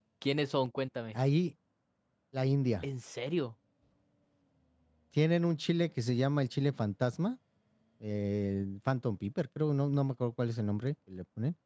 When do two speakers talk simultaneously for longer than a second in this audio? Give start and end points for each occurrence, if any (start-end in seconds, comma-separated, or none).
none